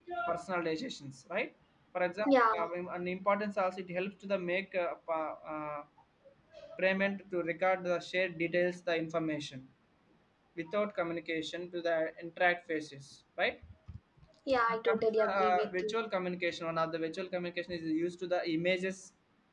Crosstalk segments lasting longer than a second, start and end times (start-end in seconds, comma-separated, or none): 14.7-15.9